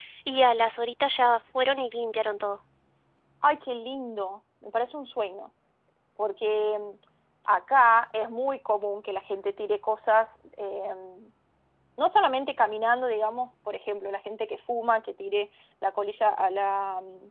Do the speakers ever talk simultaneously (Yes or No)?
No